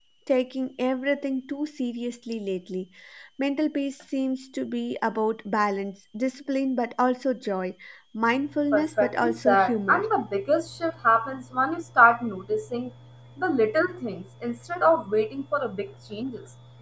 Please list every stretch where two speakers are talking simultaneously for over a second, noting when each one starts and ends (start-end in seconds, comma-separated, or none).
8.7-10.0